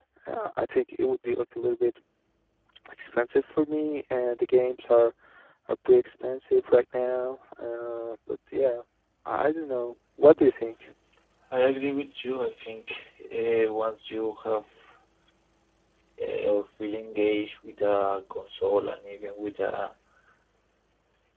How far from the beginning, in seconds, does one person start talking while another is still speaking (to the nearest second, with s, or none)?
none